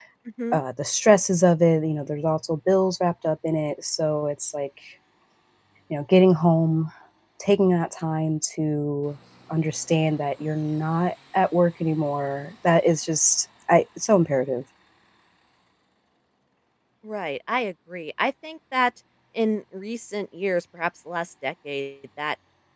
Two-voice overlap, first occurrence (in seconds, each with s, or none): none